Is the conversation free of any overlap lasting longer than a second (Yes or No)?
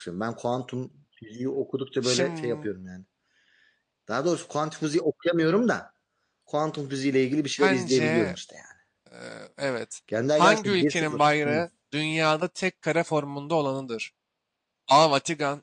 No